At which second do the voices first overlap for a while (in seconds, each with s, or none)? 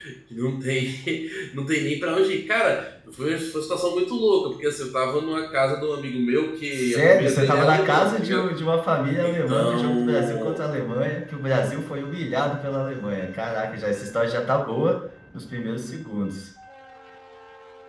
6.7 s